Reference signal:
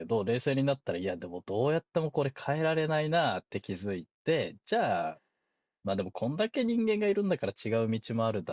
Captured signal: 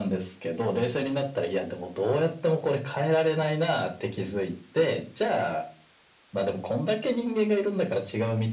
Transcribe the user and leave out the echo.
none

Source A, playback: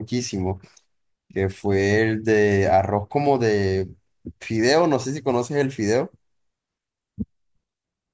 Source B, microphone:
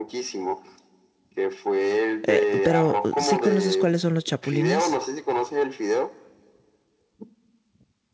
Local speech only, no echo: Eh, pero sí conoces cuáles son los chapulines.

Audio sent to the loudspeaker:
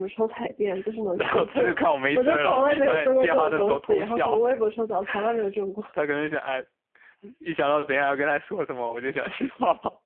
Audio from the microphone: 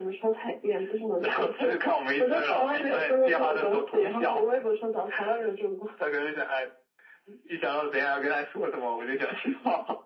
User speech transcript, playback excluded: none

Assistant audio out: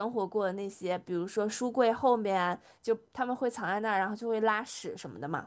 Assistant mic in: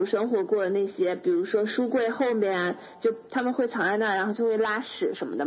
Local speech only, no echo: none

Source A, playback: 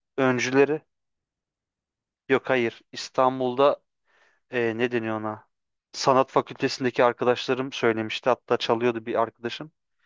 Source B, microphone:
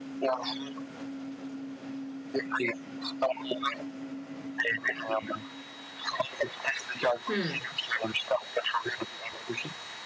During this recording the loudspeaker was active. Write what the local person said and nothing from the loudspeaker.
Hı

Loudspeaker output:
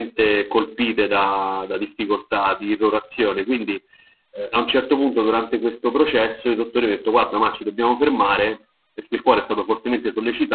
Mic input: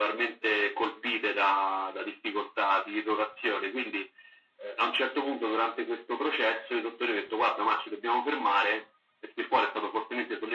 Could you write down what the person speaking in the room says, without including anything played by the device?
none

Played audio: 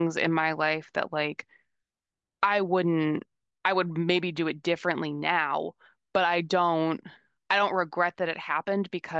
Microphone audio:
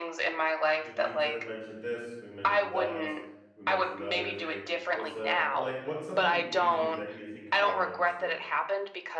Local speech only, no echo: did we d- mention this? We mentioned that. We mentioned the other thing. What's a well, like what's something you do that you think I don't do?

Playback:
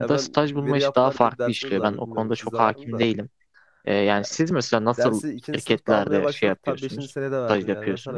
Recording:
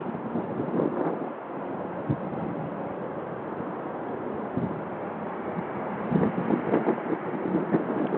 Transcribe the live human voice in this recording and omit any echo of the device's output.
none

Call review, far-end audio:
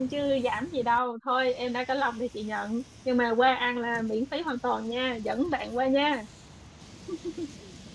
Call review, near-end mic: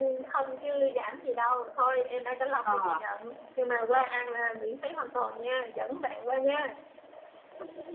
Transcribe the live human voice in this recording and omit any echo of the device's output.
ờ

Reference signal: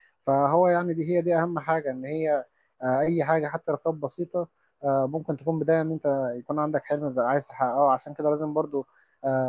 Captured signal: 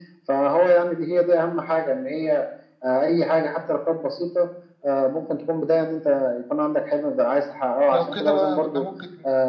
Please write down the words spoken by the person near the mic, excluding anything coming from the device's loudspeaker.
لو كده بقى احنا ممكن

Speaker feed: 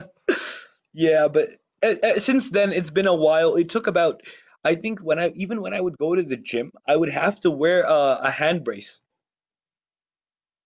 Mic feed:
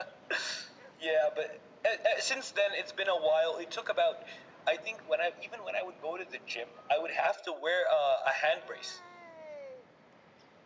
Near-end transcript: none

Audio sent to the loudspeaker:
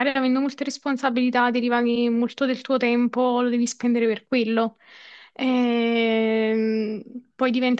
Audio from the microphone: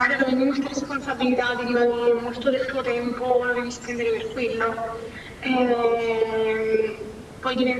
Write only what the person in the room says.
none

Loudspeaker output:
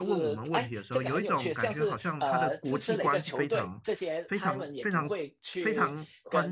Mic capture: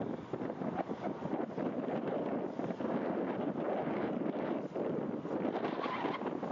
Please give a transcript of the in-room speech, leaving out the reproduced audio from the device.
none

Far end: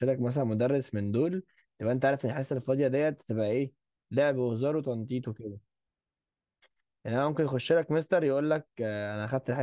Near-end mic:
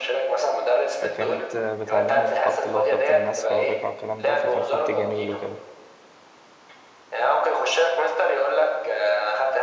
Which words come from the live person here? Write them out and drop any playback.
فكانت آه، بتعلمني الخط اللي هو خط النسخ والرقعه والكلام ده فكان خط جميل وكده

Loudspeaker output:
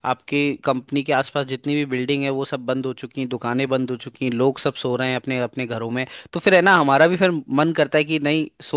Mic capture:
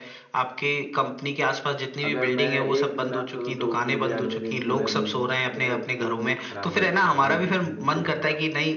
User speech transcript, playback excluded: अगर मैं एक दिन ना सोऊं तो मुझे अगले दिन पूरा नींद मेरा पूरा मूड खराब हो जाता है अगले दिन पूरा खराब हो

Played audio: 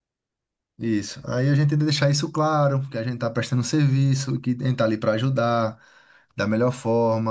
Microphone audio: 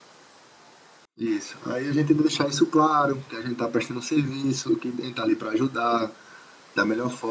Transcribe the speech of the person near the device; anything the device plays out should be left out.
none

